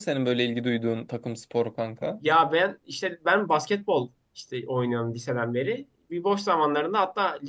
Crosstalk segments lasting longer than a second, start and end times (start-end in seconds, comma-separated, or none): none